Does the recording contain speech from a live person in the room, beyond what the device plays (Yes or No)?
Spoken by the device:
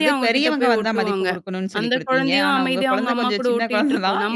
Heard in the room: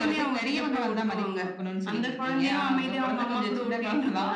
No